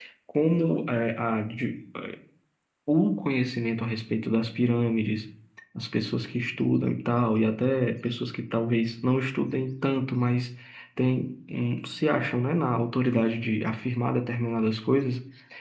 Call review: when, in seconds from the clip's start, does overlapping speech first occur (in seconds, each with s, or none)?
none